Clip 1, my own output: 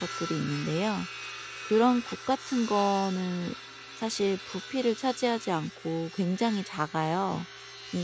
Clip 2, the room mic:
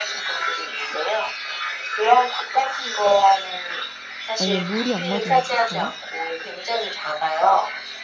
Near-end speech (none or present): present